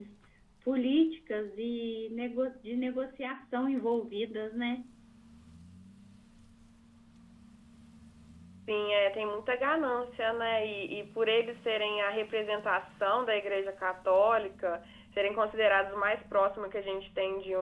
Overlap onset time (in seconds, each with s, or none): none